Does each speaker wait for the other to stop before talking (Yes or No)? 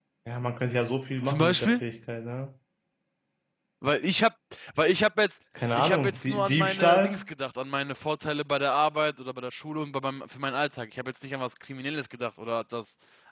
No